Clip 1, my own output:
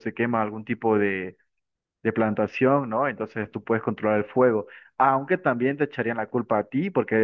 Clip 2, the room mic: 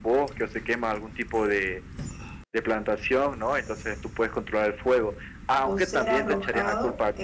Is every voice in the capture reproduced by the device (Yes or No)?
No